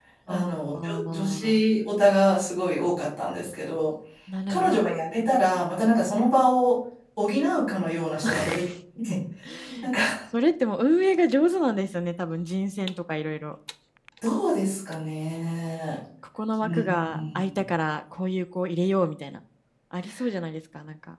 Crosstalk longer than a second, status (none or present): present